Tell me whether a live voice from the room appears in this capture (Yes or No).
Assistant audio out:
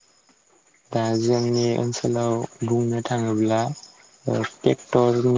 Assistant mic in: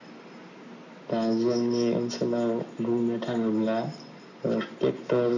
No